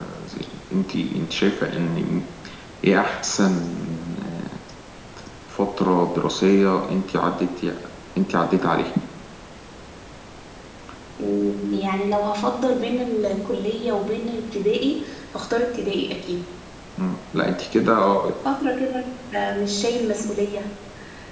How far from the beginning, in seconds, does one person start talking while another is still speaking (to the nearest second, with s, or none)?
none